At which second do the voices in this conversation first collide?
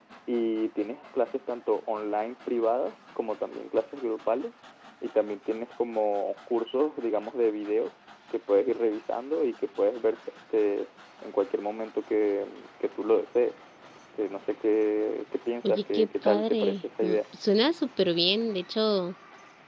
15.6 s

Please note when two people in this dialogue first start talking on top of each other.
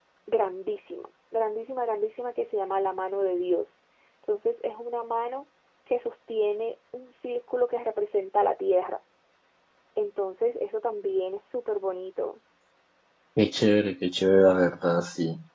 none

